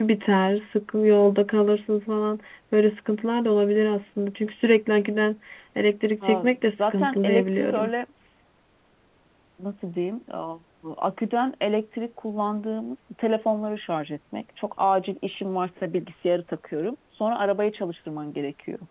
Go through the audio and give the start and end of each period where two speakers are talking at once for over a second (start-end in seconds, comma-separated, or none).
6.2-7.9